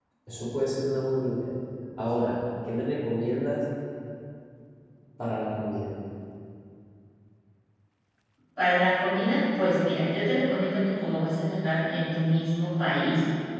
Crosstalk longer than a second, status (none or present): none